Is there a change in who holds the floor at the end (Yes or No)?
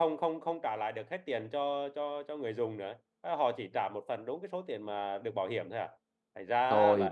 Yes